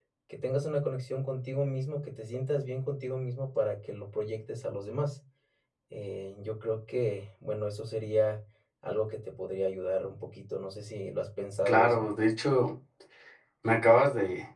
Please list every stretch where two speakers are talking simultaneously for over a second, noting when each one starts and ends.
none

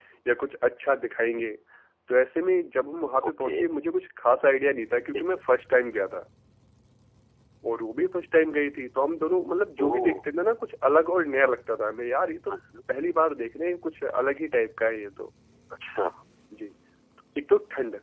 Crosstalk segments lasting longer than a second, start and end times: none

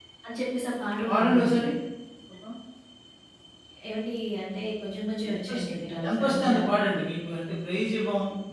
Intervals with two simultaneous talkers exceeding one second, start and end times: 5.3-6.6

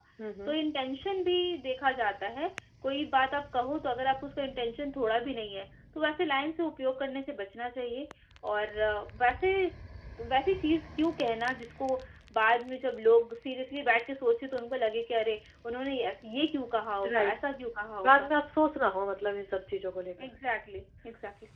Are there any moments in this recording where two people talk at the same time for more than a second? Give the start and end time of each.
none

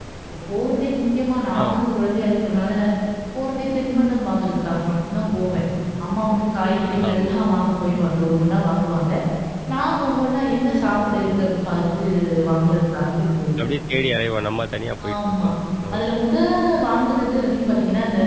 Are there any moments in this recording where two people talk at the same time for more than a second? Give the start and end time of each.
none

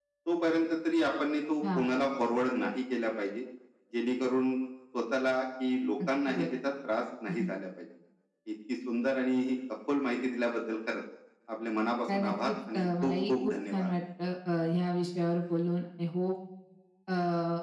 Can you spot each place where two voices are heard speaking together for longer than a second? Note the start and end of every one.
12.1-13.9

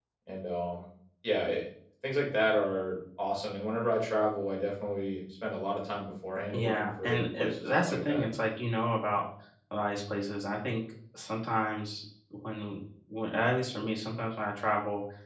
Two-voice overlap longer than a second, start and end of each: 6.5-8.2

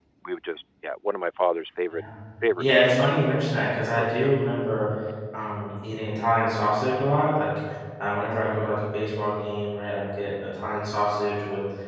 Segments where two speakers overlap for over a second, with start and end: none

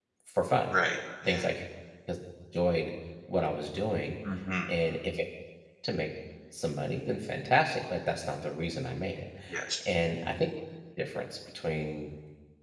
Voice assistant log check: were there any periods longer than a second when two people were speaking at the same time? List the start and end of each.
none

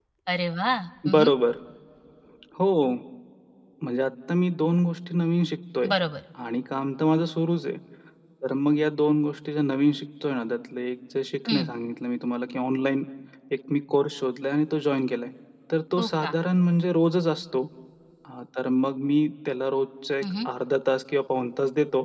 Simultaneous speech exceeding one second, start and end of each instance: none

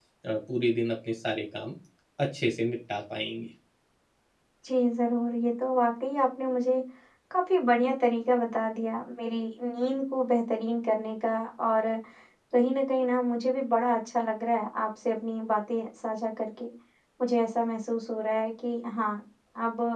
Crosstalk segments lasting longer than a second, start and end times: none

